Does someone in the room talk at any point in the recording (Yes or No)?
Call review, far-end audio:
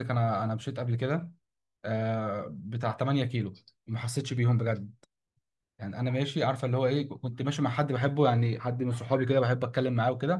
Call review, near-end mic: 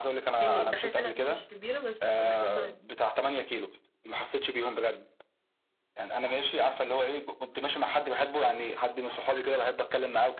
Yes